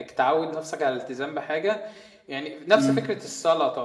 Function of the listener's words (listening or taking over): listening